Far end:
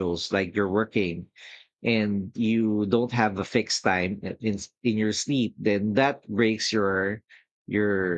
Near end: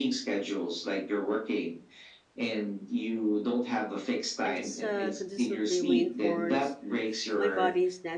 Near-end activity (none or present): present